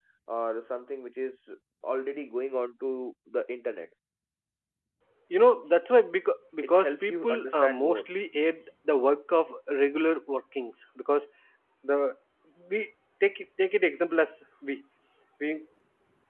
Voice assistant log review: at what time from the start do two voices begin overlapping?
6.6 s

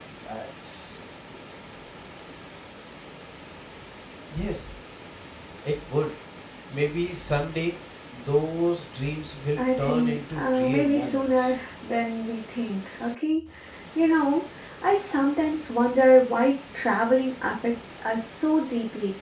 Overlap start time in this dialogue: 9.6 s

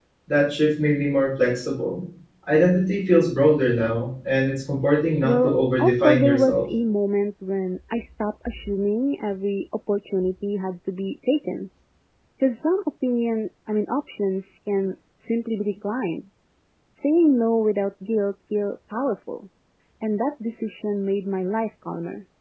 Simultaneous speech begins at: 5.2 s

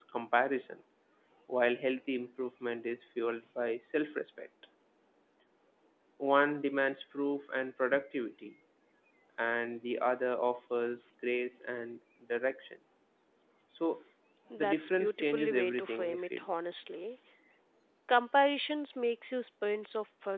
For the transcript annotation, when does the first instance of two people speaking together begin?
14.6 s

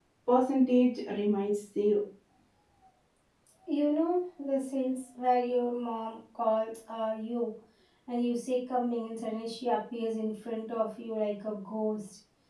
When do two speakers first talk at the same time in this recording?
none

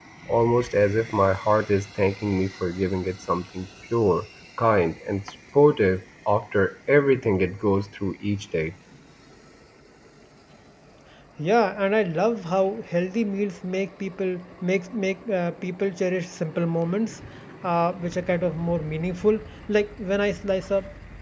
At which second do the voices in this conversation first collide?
none

